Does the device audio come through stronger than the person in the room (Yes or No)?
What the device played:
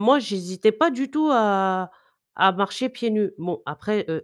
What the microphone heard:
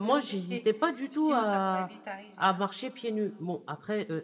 Yes